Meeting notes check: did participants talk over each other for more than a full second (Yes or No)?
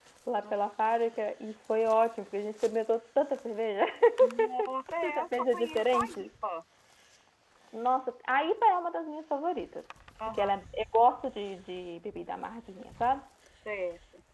Yes